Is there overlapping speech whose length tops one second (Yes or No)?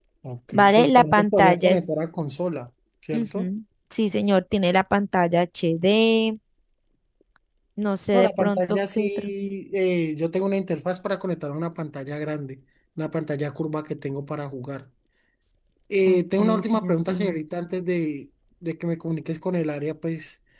Yes